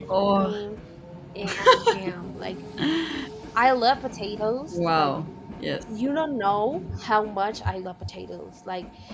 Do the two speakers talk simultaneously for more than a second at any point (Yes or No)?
No